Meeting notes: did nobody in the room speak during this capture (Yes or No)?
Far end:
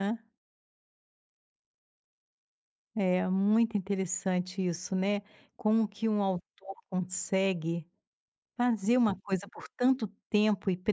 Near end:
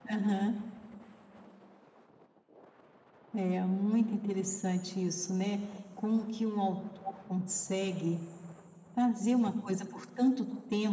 Yes